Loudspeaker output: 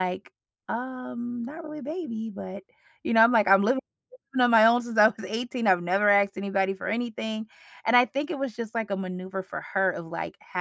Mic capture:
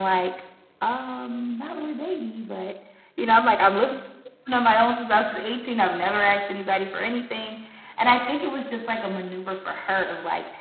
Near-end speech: none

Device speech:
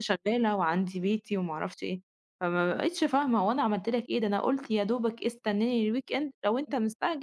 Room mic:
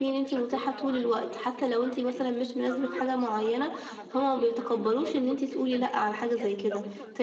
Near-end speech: present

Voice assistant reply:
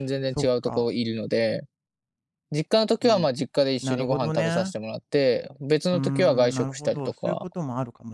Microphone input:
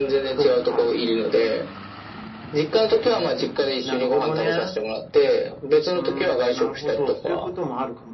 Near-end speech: none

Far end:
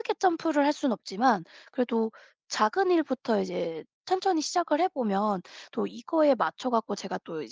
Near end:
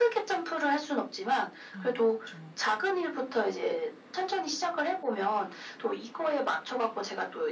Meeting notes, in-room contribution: present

